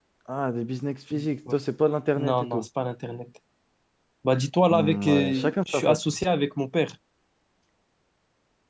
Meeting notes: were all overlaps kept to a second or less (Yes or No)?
No